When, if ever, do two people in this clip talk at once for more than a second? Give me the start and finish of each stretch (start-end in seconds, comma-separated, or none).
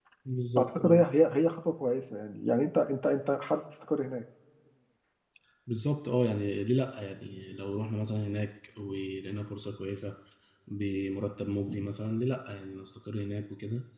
none